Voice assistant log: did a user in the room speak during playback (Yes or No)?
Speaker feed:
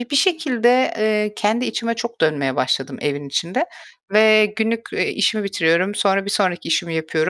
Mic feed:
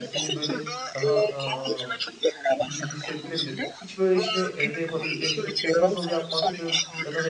Yes